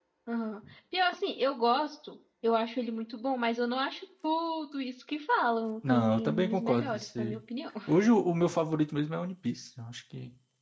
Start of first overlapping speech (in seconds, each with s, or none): 5.8 s